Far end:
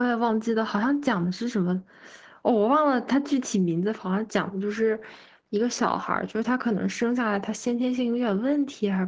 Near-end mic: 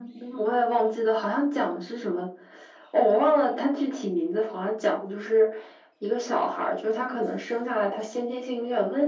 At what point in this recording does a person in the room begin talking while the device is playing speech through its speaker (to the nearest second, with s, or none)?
none